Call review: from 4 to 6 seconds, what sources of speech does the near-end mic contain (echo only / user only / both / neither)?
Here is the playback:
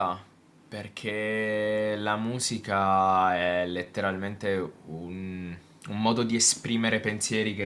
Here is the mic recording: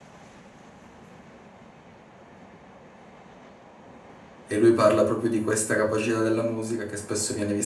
user only